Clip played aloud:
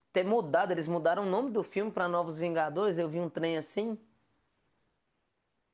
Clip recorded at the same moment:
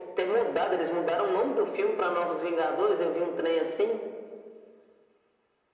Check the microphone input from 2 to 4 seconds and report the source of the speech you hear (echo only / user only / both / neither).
echo only